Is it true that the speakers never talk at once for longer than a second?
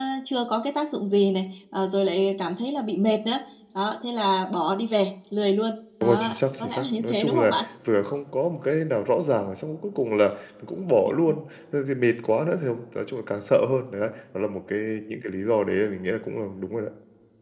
No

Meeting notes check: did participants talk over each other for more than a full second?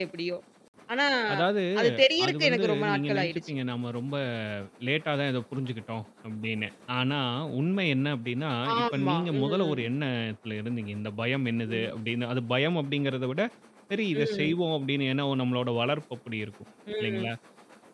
Yes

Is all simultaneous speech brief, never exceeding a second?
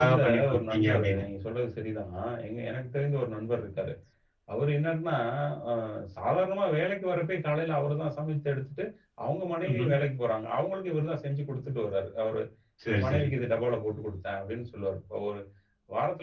No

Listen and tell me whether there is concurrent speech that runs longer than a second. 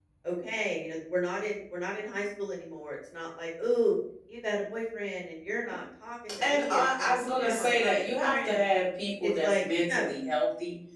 Yes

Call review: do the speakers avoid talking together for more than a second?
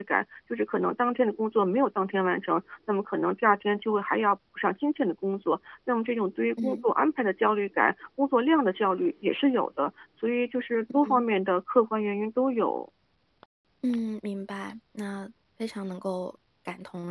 Yes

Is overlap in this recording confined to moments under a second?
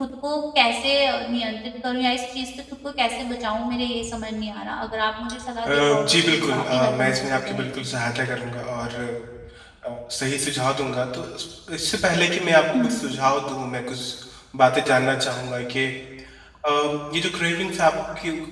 No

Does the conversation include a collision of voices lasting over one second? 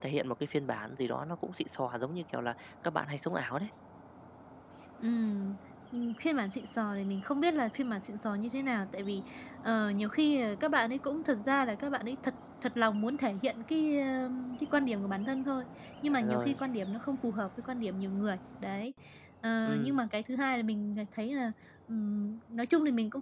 No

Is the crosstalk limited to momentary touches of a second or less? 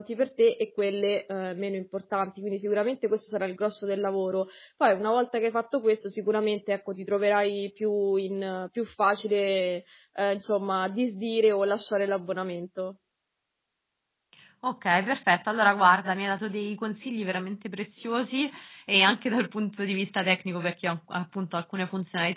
Yes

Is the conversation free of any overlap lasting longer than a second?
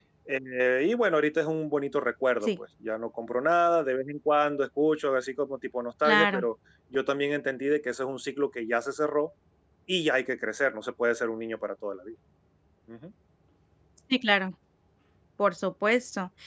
Yes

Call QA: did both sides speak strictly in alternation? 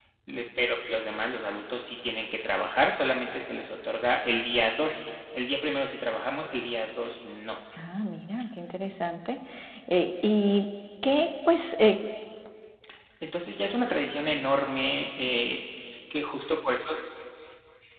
Yes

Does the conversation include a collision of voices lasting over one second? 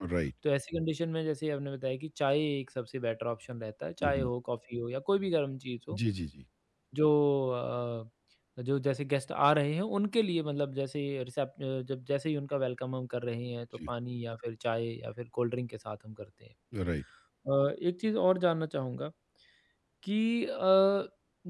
No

